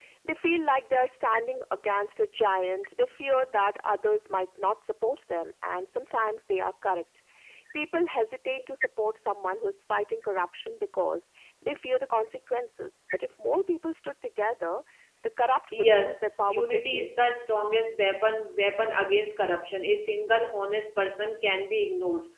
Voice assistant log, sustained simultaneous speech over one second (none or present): present